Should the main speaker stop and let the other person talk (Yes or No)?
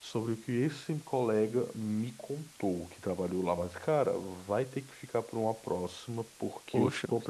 No